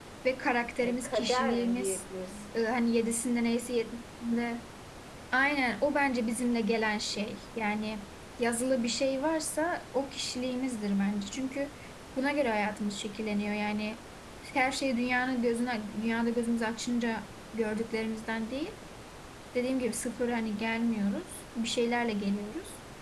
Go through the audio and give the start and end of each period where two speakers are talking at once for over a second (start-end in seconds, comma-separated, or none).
0.8-2.0